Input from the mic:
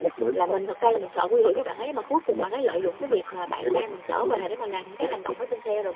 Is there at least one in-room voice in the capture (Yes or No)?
Yes